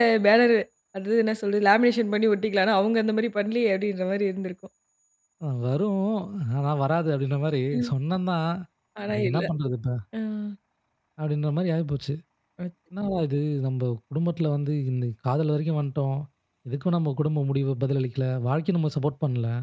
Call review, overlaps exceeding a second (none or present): none